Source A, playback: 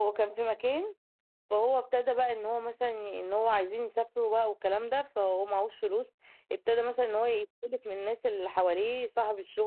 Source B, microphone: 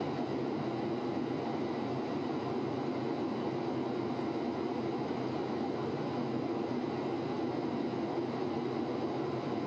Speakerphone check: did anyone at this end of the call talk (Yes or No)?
No